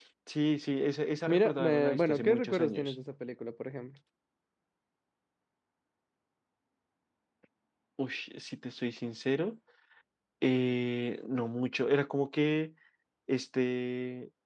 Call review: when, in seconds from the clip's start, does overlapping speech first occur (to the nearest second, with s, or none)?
1 s